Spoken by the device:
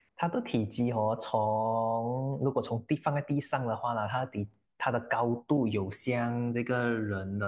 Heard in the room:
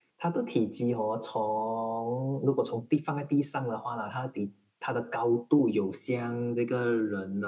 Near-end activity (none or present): none